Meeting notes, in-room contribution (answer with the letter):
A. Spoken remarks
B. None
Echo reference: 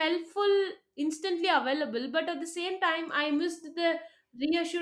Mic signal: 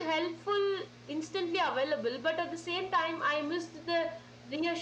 B